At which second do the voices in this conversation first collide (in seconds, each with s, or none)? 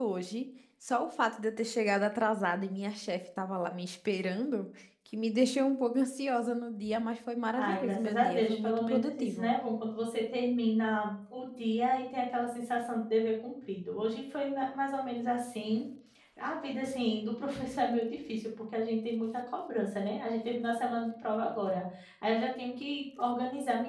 7.5 s